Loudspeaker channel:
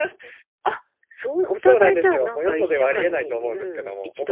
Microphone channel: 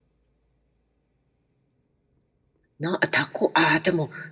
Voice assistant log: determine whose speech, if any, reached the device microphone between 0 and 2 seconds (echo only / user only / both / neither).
neither